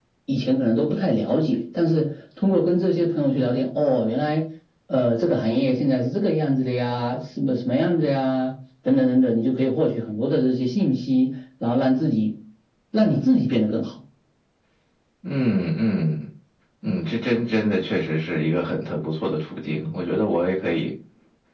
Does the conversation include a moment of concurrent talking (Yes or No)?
No